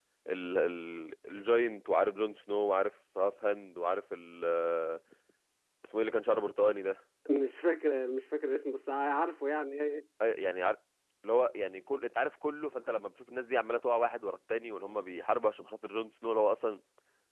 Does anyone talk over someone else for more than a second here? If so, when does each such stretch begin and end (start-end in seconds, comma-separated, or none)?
none